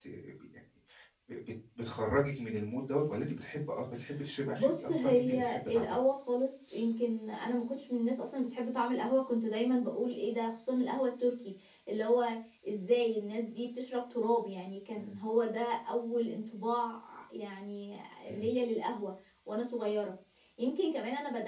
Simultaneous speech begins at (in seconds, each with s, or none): 4.5 s